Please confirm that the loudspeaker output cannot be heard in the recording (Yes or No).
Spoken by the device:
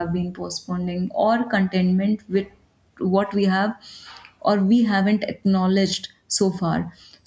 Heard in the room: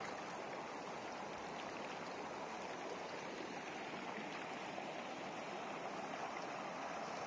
Yes